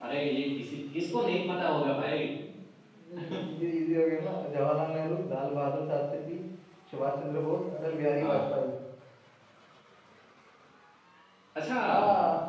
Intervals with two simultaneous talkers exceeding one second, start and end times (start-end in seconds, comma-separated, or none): none